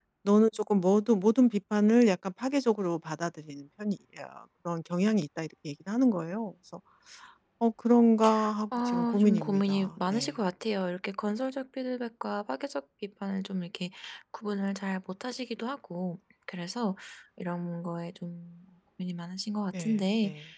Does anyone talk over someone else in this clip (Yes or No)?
Yes